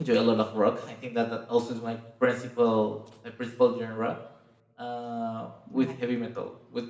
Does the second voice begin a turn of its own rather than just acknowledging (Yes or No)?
No